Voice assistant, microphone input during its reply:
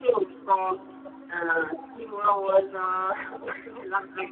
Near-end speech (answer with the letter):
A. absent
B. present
A